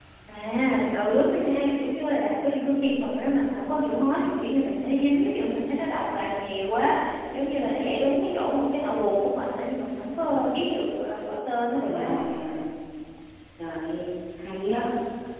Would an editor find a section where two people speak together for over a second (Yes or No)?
No